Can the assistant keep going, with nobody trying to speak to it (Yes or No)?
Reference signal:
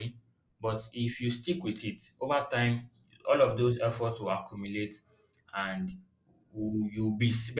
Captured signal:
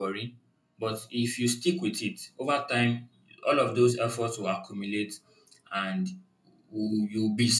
Yes